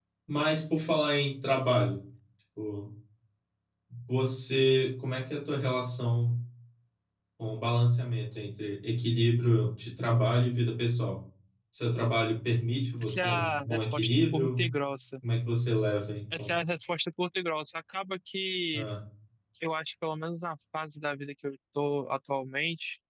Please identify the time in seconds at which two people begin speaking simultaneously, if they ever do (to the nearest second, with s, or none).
13 s